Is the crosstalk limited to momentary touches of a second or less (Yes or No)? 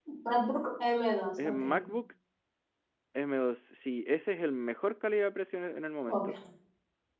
Yes